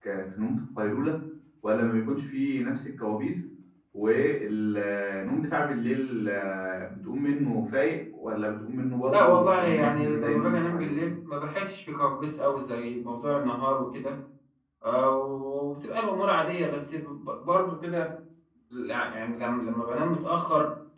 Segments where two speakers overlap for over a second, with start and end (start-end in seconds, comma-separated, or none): 9.1-11.0